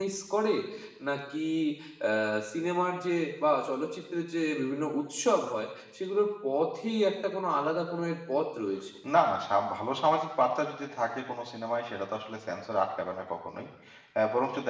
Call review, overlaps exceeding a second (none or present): none